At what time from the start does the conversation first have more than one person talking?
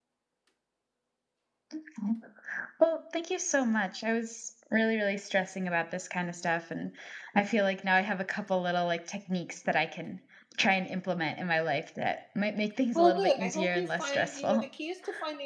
13 s

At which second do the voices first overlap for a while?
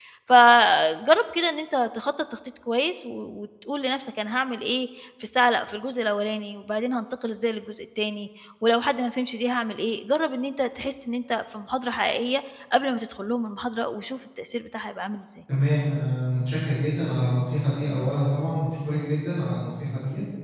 none

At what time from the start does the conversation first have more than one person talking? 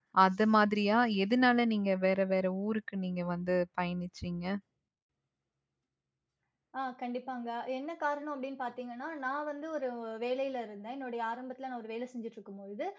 none

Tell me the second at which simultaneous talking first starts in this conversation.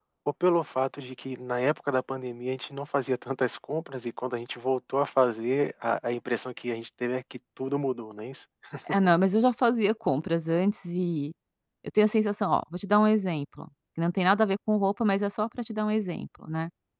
none

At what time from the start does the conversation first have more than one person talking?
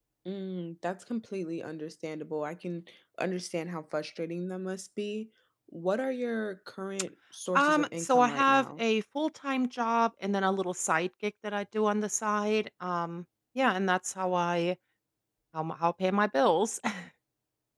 8 s

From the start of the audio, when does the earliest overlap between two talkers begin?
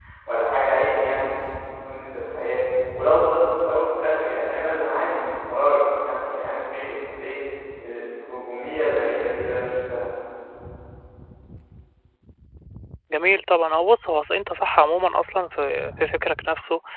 none

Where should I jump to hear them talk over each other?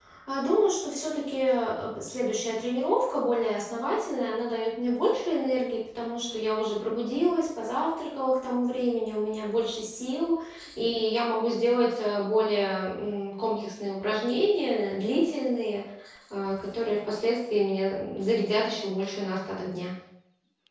none

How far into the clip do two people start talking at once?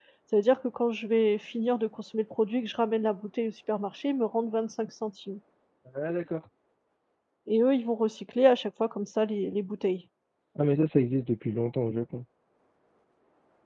none

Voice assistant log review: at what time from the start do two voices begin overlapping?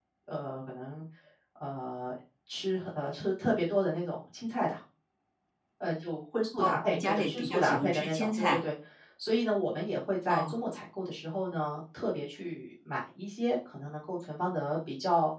7 s

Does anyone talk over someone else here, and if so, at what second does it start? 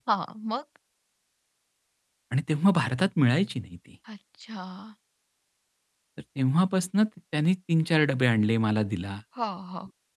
none

